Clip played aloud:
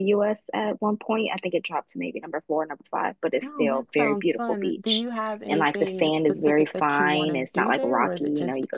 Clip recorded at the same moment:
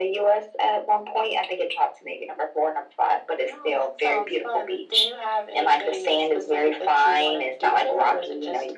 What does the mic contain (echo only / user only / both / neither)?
echo only